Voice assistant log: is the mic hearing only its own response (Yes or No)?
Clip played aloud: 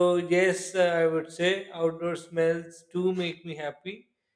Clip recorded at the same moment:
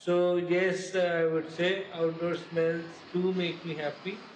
Yes